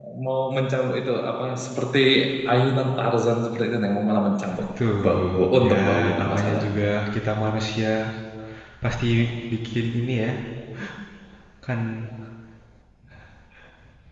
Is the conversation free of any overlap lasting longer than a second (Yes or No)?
No